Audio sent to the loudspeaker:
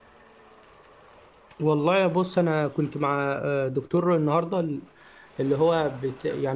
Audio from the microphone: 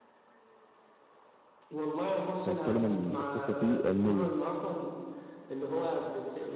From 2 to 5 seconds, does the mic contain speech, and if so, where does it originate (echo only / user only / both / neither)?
both